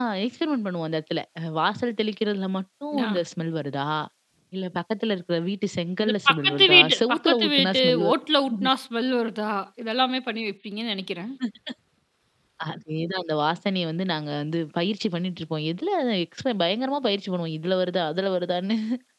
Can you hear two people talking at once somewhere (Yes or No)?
Yes